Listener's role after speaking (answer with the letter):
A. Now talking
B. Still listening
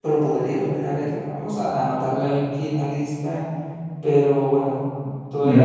A